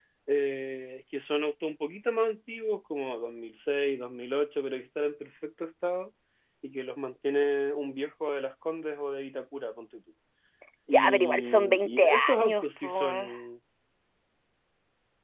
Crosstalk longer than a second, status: present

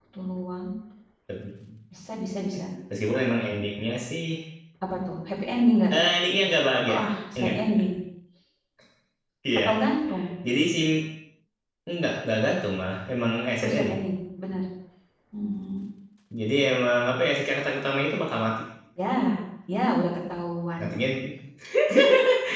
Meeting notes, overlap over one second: none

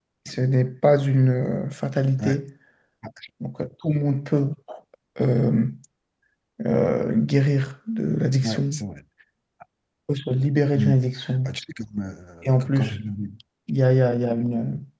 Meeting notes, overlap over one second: none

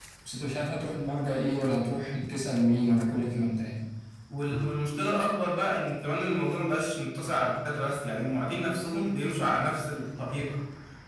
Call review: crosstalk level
none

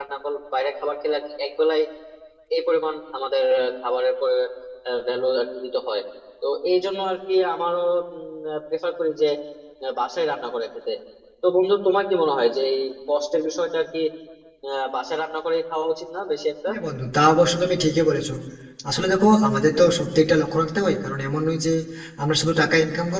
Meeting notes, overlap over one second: none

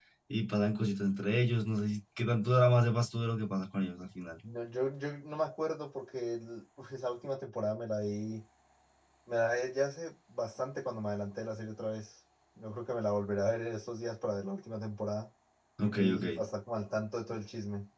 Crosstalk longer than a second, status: none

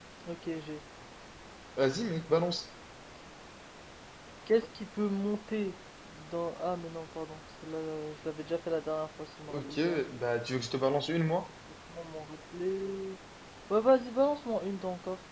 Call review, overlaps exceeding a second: none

